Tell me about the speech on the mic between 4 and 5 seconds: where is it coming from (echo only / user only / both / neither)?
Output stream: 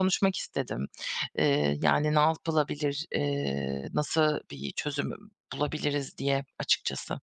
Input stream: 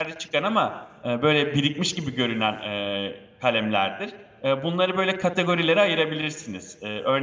user only